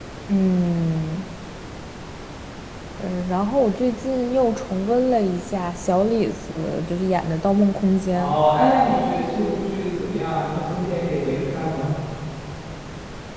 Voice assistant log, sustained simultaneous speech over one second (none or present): none